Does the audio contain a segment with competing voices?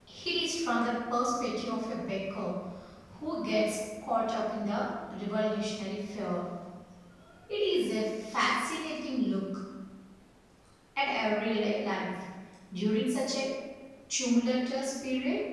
No

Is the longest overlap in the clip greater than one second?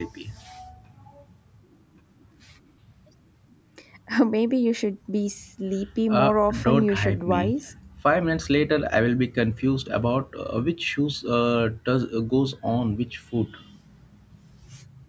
Yes, from 6.1 s

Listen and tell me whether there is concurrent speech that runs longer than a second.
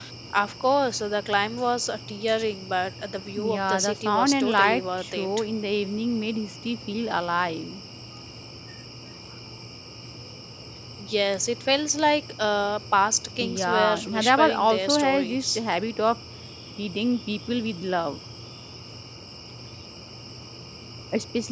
Yes, from 3.4 s

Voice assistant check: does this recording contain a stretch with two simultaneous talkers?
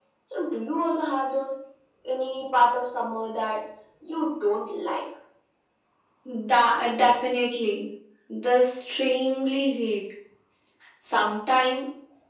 No

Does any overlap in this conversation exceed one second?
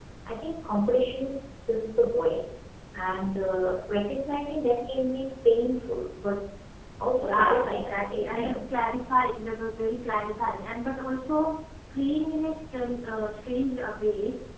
Yes, from 7.2 s

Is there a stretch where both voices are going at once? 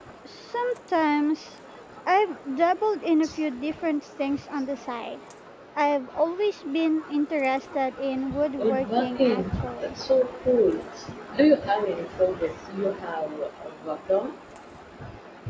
Yes, from 8.6 s

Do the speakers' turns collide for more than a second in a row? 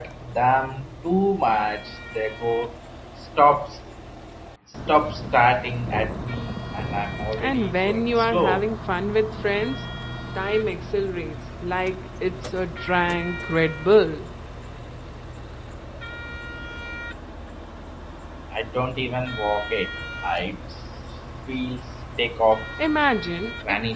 Yes, from 7.4 s

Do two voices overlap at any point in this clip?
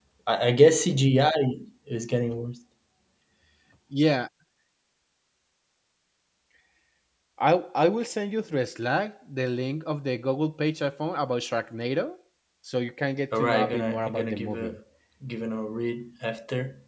Yes, from 13.4 s

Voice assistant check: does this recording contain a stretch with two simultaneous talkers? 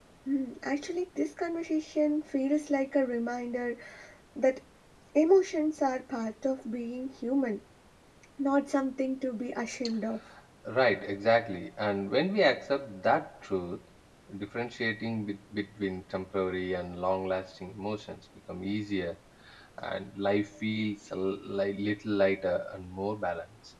No

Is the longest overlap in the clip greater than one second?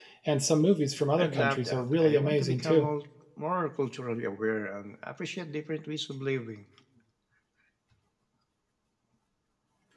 Yes, from 1.2 s

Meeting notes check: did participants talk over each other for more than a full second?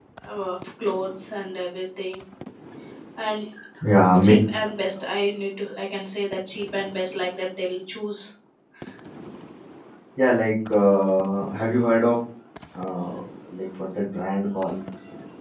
No

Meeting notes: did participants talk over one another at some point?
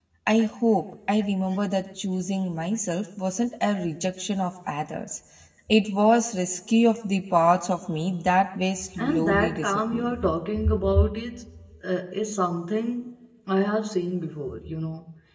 Yes, from 9.0 s

